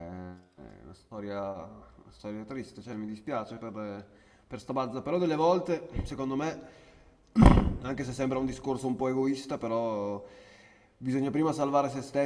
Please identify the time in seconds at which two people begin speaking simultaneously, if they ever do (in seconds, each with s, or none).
none